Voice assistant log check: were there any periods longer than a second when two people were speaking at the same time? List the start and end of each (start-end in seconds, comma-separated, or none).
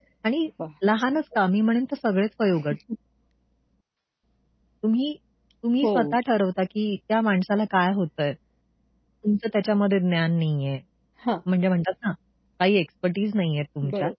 none